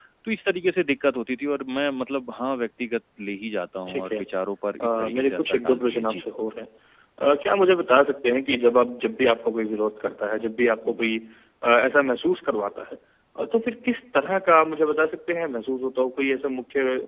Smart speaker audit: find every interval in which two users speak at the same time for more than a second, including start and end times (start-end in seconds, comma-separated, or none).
4.8-6.2